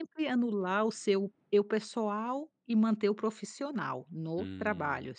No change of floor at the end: No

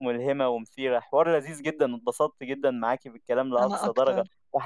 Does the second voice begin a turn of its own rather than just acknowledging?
No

